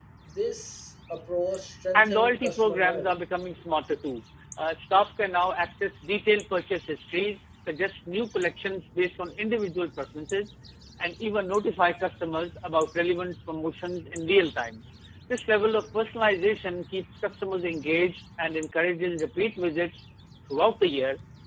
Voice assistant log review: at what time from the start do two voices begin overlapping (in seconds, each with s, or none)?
1.9 s